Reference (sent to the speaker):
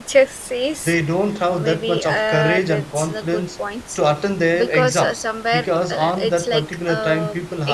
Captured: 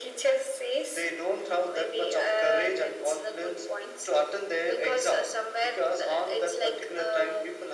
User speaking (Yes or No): No